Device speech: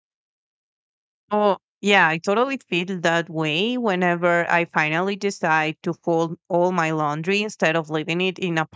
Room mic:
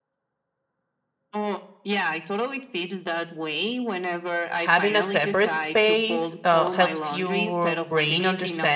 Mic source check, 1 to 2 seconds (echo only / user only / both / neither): echo only